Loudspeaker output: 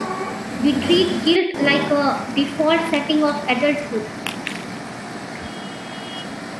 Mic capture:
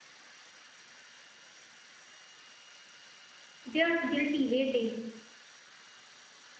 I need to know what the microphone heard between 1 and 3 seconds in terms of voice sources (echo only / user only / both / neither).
neither